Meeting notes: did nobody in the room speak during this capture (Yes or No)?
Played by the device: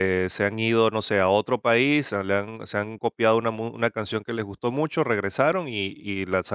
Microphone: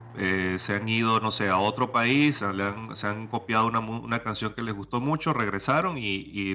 Yes